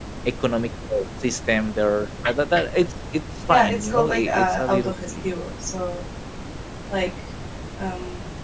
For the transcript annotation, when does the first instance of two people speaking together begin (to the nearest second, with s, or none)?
3 s